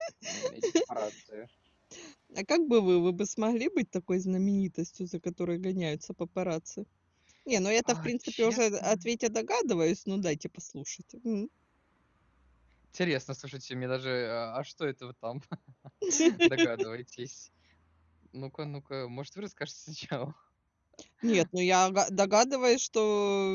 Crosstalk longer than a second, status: present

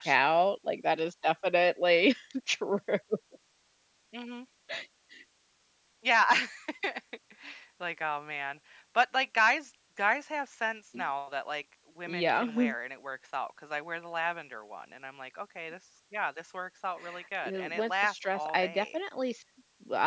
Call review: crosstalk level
present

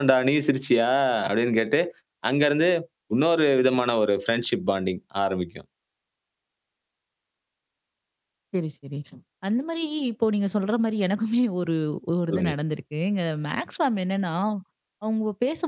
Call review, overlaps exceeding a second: none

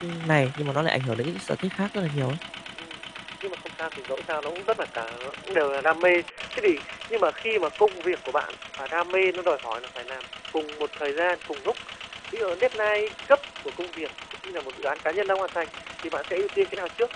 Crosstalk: none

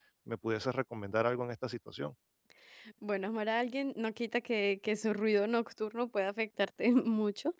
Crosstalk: none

